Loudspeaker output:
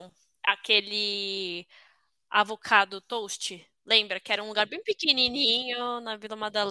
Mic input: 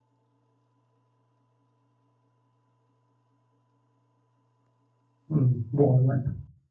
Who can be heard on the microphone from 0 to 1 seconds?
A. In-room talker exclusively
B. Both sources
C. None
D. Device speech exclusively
C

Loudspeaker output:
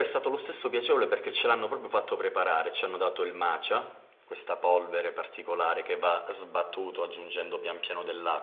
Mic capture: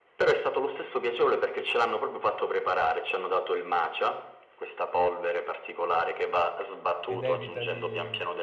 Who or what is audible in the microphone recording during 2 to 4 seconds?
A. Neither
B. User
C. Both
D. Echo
D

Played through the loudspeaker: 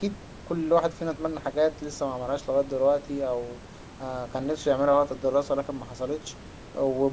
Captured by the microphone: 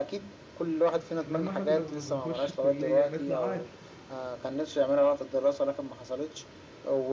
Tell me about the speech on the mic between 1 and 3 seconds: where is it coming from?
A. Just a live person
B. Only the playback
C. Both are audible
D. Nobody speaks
C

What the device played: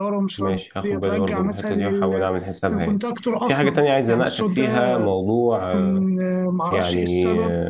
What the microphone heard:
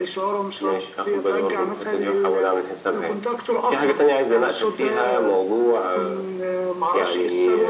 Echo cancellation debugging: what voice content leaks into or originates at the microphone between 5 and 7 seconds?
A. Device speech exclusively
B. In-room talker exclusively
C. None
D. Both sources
A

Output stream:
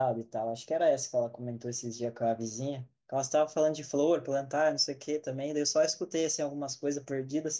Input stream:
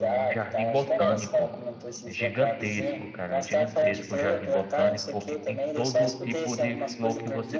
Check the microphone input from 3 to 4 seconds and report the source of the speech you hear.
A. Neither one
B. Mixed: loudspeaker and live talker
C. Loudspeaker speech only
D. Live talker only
B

